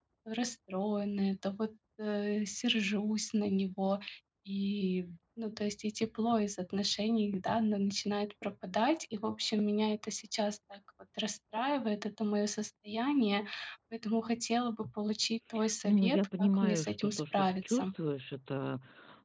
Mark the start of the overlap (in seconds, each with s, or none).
15.8 s